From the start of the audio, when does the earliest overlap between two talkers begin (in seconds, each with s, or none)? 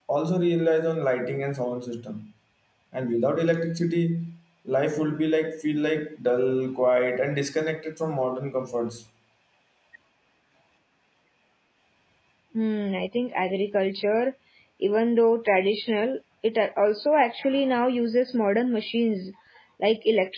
none